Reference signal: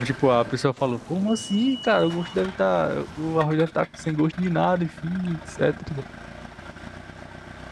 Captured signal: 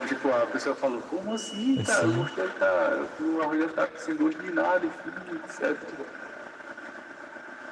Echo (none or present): present